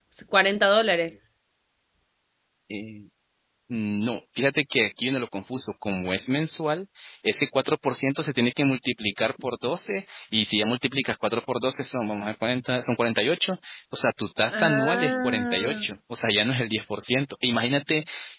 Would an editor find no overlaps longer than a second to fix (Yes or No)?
No